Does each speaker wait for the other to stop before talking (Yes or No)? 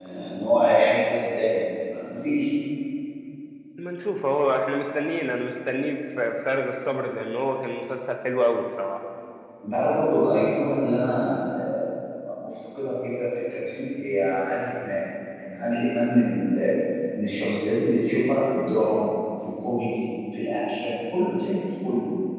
Yes